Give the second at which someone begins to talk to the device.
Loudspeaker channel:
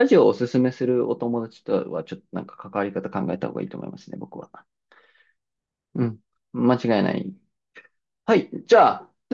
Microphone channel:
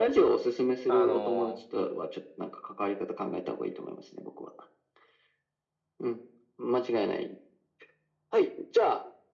0.9 s

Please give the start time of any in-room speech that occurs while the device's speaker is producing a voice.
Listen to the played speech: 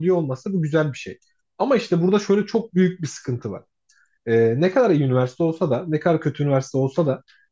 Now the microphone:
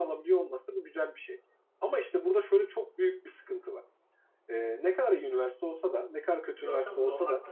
6.6 s

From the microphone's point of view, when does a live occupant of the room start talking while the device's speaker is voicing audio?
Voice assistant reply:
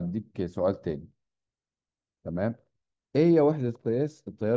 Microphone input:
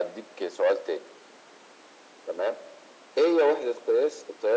none

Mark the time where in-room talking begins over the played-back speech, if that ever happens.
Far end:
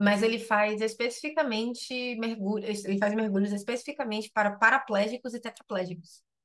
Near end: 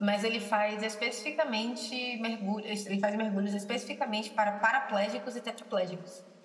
none

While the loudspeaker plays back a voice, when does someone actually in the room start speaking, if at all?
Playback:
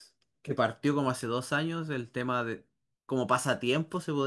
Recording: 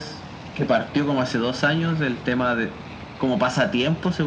none

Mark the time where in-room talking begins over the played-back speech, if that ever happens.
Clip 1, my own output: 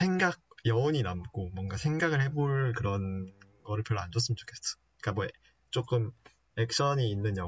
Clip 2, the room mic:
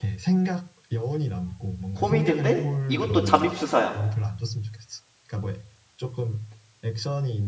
1.9 s

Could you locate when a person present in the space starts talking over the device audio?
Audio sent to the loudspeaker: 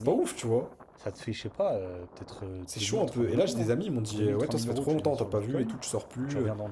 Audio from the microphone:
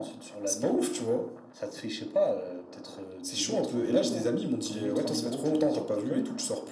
none

